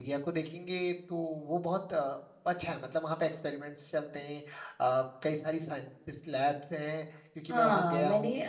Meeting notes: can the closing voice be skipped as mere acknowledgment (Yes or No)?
No